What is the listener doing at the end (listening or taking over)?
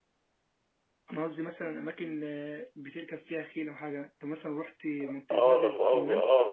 taking over